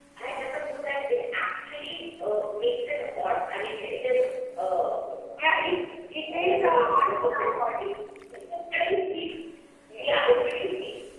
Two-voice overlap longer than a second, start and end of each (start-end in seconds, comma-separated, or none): 6.3-7.5